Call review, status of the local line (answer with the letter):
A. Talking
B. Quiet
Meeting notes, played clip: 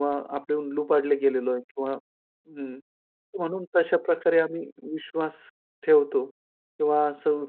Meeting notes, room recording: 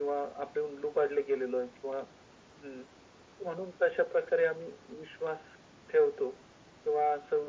B